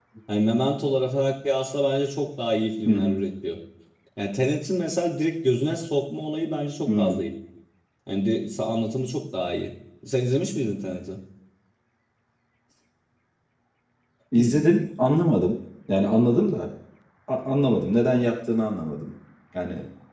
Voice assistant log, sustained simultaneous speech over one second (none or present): none